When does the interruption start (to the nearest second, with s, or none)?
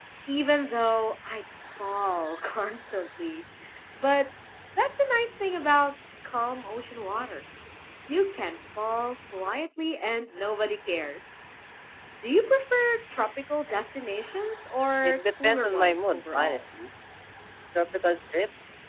15 s